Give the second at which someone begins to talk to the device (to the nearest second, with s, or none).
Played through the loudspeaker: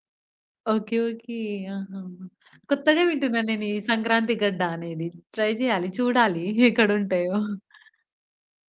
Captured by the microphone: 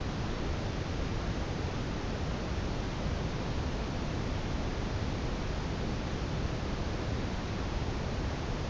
none